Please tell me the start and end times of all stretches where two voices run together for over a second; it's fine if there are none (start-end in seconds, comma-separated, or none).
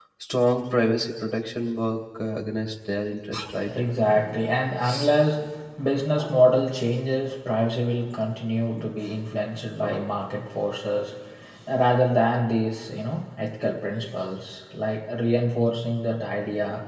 none